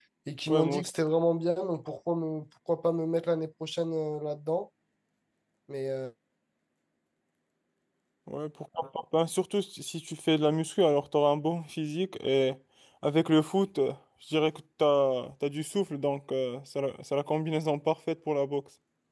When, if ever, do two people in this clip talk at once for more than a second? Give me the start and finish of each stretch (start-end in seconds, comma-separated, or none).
none